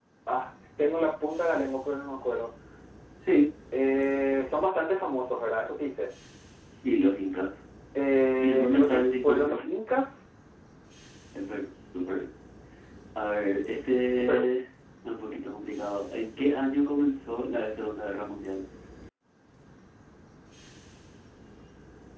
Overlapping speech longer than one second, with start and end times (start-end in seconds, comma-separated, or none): 8.4-9.7